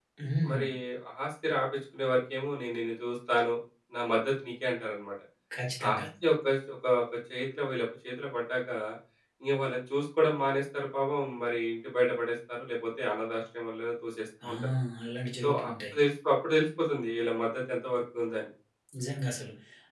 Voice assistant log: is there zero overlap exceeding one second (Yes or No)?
Yes